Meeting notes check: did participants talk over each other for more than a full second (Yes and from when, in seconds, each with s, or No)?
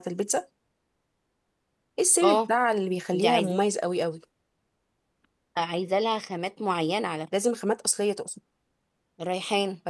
No